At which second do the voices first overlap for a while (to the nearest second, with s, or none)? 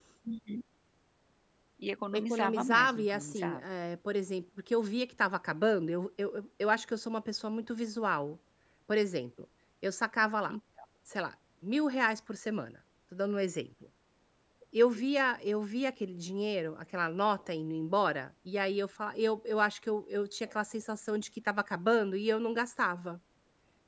2 s